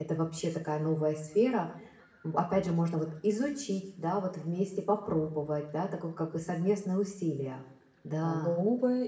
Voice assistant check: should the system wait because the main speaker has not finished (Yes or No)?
No